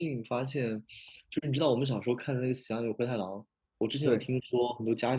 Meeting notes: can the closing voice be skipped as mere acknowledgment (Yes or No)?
Yes